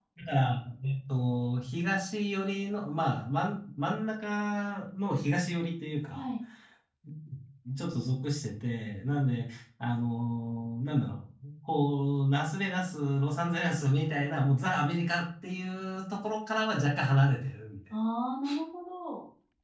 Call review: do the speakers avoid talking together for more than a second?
Yes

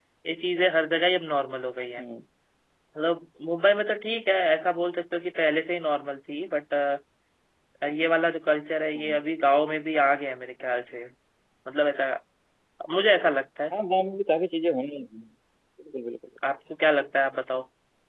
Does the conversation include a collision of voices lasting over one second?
No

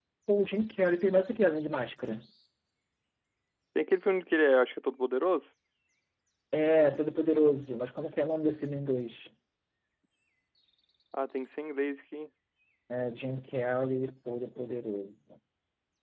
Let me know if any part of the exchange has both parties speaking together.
No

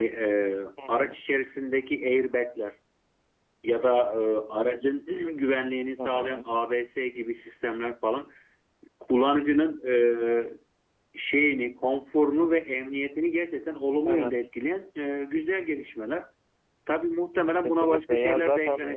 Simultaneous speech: Yes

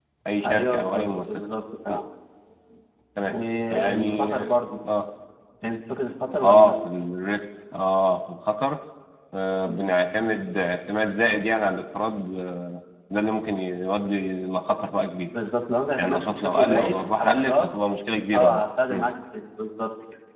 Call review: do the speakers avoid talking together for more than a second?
No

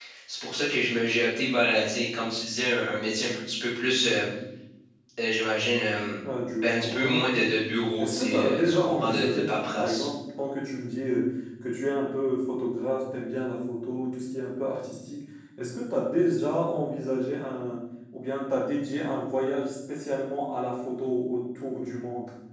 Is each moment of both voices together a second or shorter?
No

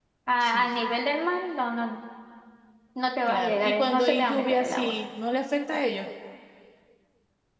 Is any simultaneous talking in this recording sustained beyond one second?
Yes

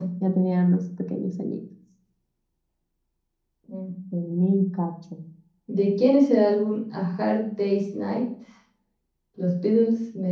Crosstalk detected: No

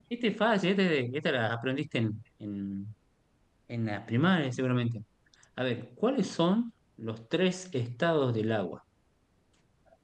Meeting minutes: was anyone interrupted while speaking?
No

